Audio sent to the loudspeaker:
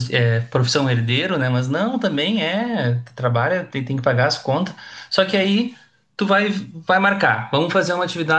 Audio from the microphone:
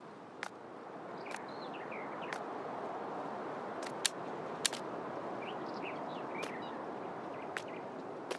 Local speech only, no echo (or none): none